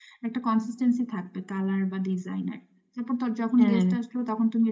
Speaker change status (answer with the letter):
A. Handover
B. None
B